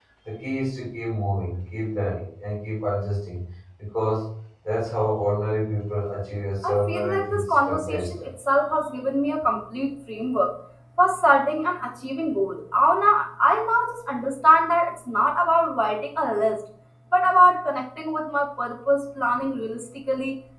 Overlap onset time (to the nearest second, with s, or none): 7 s